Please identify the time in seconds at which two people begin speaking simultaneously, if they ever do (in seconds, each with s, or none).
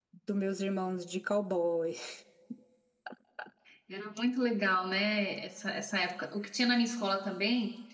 none